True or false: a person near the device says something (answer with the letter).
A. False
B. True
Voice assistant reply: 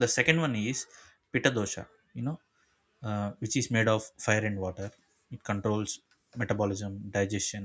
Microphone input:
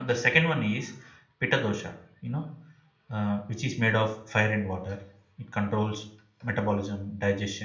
A